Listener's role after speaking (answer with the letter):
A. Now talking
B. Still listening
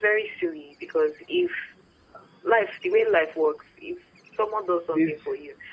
B